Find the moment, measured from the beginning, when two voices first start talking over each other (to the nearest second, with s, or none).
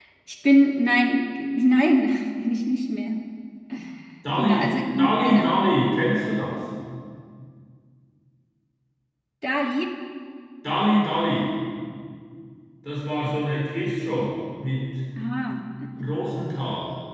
4 s